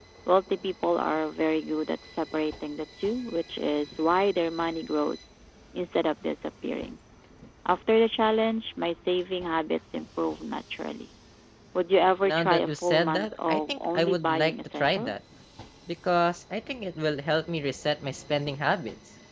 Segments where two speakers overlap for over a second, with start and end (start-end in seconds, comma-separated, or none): 12.2-15.2